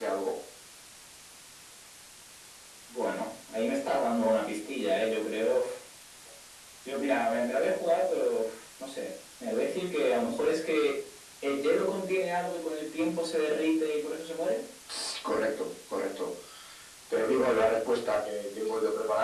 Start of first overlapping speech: none

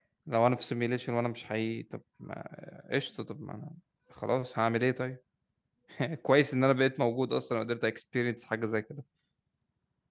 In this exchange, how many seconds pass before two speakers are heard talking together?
none

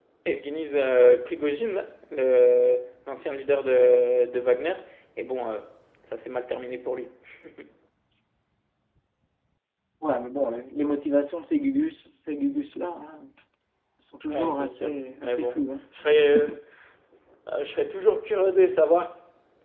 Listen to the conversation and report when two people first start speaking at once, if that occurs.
14.3 s

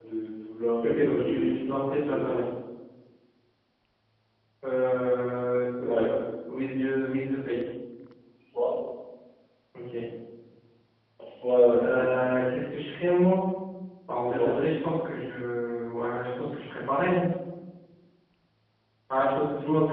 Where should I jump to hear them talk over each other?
0.8 s

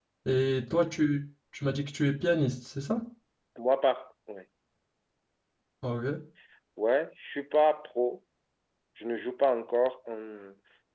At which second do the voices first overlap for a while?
none

